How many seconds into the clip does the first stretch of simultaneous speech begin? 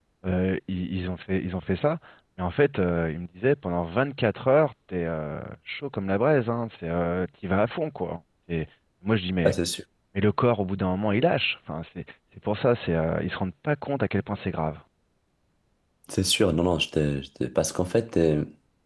none

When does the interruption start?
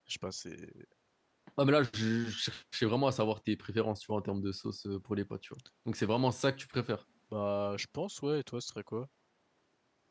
none

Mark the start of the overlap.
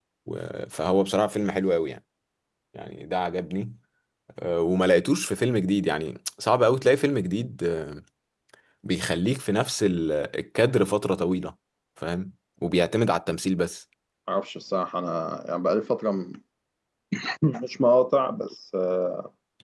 none

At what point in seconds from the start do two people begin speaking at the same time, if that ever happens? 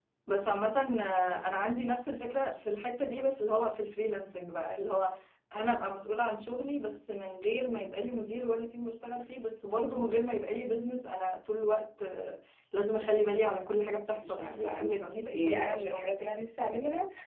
14 s

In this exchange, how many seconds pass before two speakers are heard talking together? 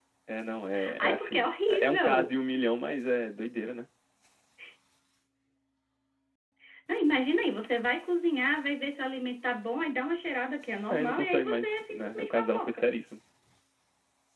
1 s

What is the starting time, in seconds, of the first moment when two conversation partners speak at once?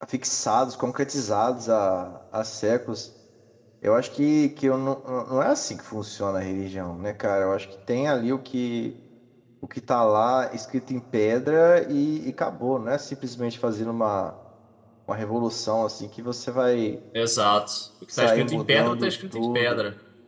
18 s

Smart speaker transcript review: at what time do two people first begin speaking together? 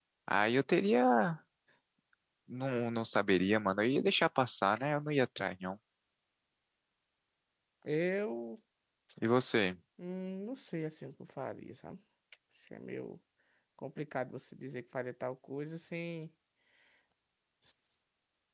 none

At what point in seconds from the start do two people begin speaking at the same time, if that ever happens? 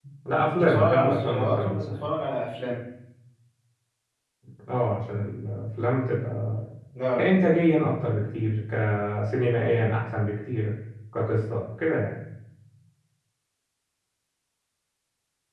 1 s

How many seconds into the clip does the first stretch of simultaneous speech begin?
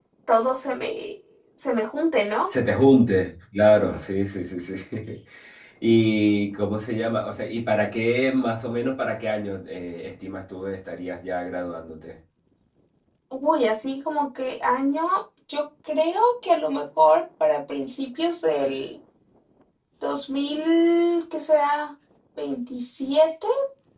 none

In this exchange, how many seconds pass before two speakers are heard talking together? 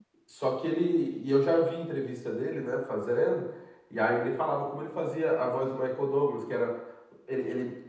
none

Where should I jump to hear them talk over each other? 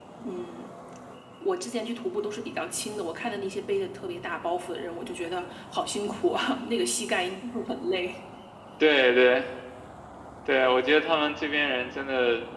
none

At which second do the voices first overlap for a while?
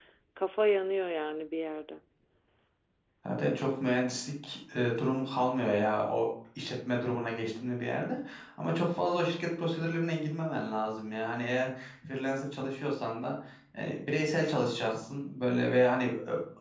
none

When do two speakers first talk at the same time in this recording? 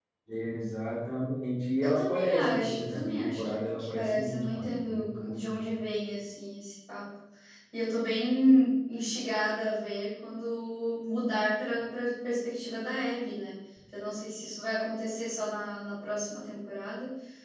2 s

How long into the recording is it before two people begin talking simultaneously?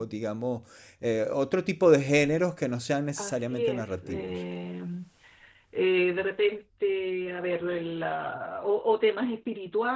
3 s

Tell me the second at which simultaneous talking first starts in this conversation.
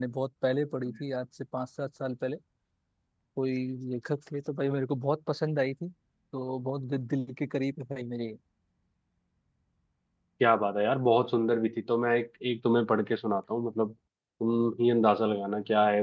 none

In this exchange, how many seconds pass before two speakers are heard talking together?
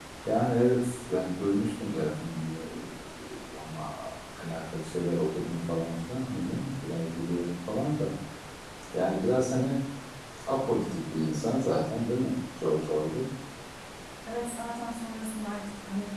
none

